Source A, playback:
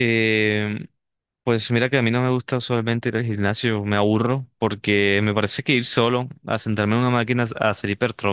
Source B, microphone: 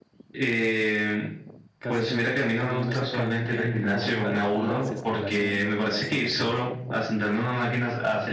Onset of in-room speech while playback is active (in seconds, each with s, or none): 1.8 s